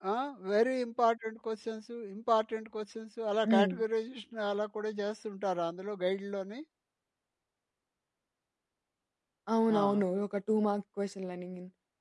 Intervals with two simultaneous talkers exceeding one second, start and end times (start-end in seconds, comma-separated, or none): none